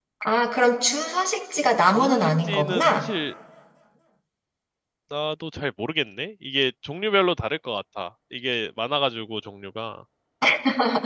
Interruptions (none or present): present